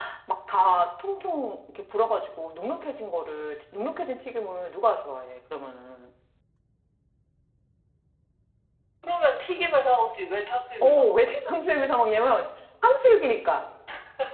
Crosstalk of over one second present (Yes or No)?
No